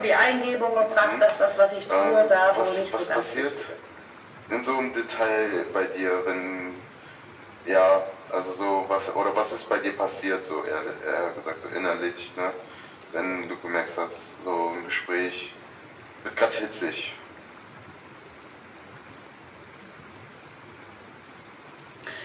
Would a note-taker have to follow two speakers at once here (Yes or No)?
Yes